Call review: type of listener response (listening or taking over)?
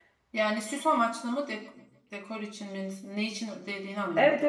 taking over